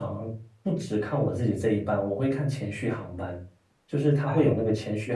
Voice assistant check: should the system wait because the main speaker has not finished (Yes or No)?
Yes